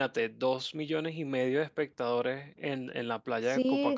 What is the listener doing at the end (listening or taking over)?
taking over